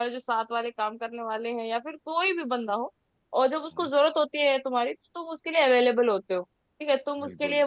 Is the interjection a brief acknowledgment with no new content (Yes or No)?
Yes